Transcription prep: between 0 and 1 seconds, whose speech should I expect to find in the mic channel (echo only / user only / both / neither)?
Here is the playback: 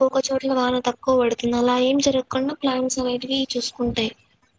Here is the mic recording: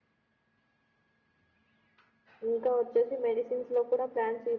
neither